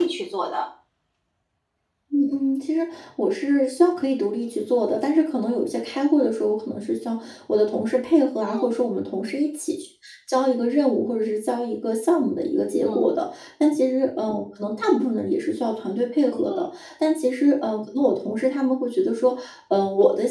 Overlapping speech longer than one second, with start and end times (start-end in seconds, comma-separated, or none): none